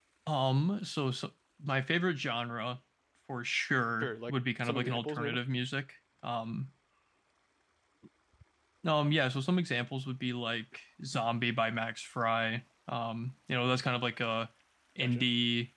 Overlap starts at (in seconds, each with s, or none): 4.0 s